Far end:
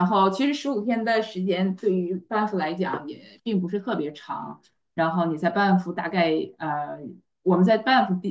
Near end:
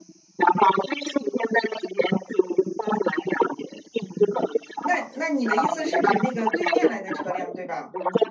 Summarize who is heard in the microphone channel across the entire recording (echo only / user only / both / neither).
both